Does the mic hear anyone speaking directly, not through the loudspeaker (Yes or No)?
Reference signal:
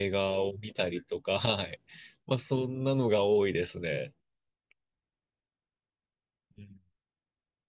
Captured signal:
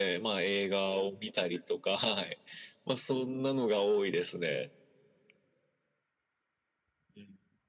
No